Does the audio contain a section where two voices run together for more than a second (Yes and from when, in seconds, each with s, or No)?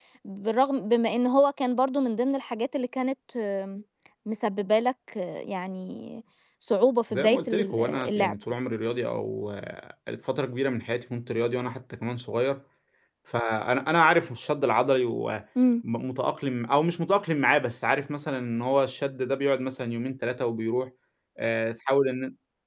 Yes, from 7.1 s